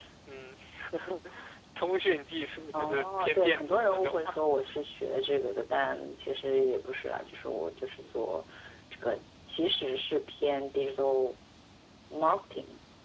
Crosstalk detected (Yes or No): Yes